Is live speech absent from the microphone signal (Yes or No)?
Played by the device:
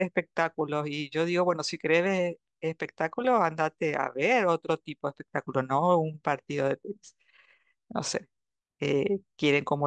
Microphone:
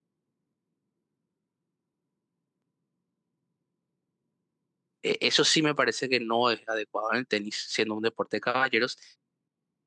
No